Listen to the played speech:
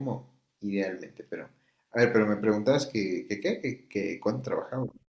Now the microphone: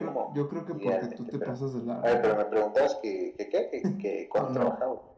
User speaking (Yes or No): Yes